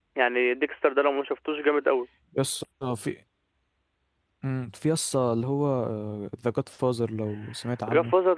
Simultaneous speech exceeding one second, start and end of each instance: none

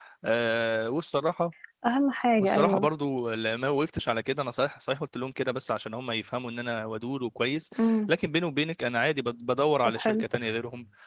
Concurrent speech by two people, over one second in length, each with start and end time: none

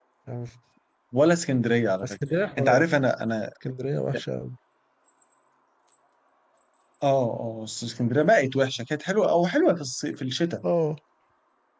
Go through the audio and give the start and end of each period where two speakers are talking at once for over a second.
none

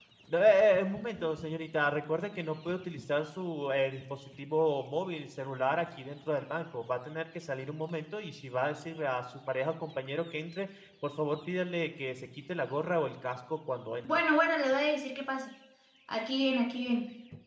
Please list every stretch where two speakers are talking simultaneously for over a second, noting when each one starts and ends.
none

